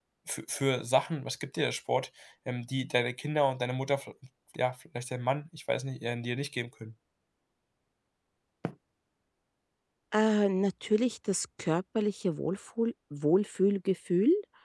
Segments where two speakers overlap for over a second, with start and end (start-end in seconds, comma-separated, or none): none